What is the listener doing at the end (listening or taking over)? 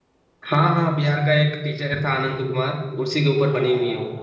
taking over